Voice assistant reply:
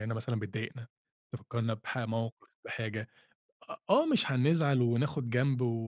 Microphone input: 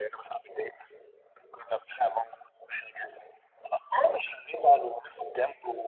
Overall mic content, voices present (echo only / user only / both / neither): echo only